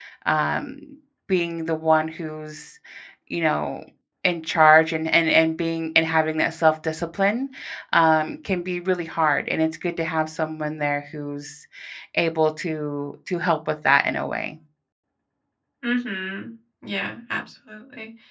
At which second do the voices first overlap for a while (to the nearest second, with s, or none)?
none